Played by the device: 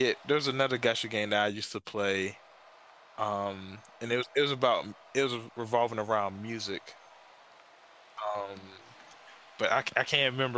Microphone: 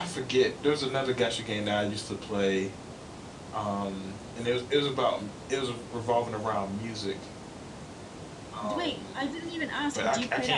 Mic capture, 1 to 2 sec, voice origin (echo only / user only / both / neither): echo only